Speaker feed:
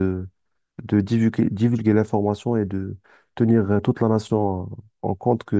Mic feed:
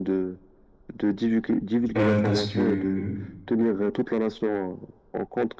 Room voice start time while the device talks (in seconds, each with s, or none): 2.0 s